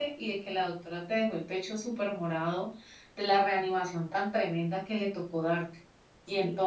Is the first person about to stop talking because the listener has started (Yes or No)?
Yes